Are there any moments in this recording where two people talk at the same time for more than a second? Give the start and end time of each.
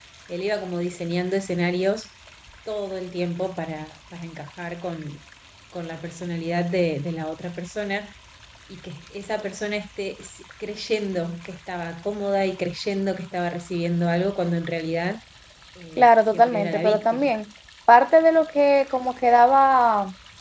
16.0-17.3

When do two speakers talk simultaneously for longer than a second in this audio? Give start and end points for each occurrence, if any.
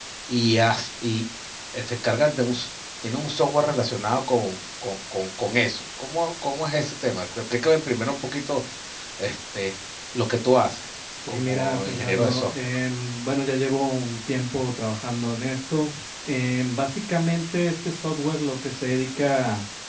11.3-12.7

